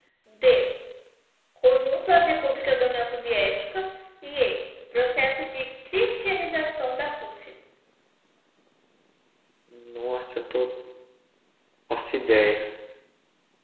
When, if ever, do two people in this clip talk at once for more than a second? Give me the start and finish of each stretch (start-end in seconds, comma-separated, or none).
none